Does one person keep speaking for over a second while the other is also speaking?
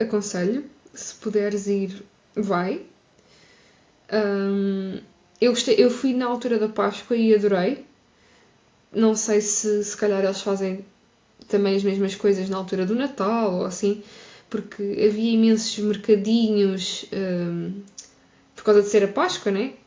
No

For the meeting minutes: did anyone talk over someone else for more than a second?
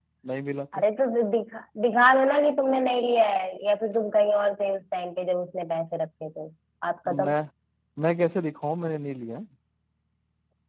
No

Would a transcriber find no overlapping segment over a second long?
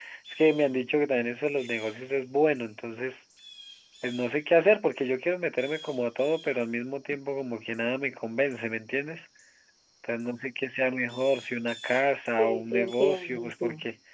No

